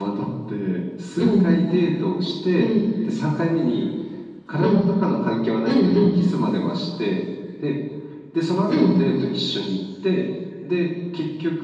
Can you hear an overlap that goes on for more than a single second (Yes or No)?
No